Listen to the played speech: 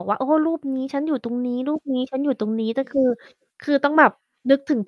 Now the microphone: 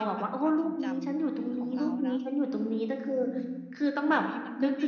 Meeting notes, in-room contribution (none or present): present